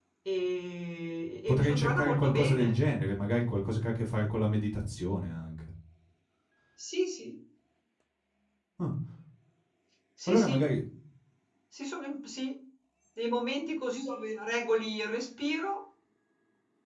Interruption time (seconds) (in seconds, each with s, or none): 1.5 s